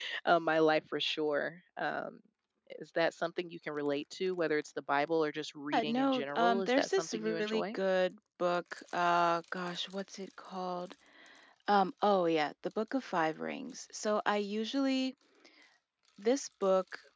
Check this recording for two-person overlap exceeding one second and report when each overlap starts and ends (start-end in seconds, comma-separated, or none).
5.7-7.8